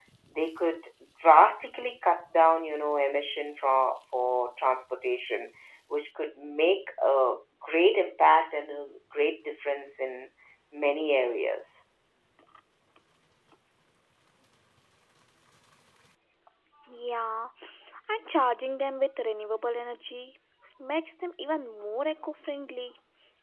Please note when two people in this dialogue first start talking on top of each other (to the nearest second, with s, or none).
none